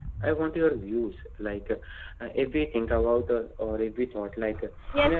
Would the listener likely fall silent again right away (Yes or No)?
No